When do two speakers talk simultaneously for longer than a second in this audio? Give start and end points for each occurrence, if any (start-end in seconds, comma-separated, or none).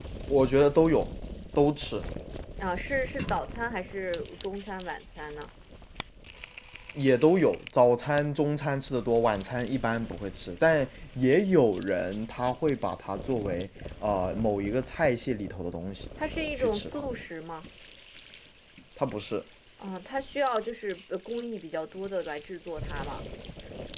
none